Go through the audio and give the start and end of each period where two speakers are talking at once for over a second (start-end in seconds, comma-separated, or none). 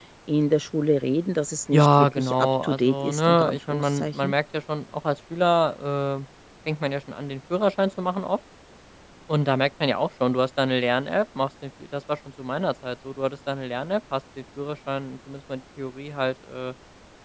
1.7-4.3